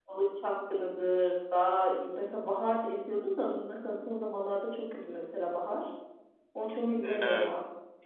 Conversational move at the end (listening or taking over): taking over